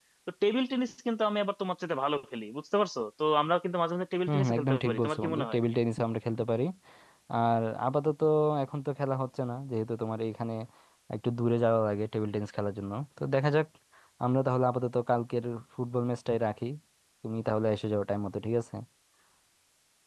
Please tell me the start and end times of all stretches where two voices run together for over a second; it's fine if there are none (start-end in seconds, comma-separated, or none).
4.3-5.6